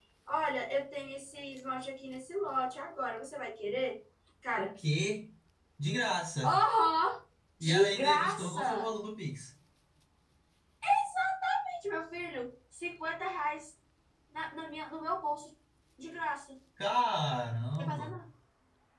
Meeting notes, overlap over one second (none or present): present